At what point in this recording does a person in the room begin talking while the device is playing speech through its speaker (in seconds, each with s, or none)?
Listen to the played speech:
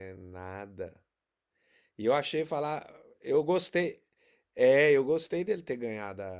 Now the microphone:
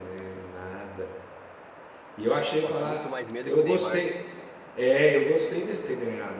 2.5 s